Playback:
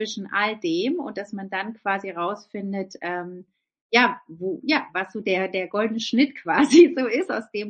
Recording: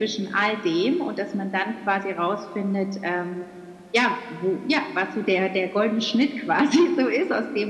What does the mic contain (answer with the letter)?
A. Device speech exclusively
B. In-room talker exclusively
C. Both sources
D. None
A